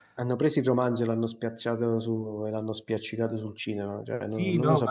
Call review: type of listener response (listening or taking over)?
taking over